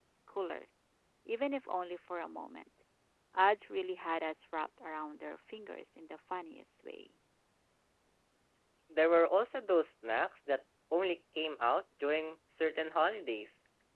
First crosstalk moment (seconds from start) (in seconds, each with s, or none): none